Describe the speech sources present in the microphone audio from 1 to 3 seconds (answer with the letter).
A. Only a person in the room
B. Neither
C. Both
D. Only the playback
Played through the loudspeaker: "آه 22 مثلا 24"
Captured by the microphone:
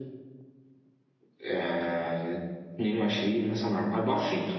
D